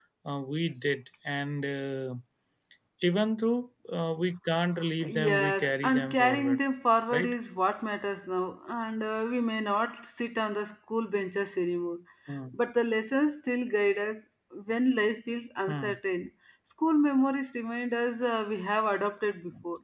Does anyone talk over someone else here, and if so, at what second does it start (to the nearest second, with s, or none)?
5 s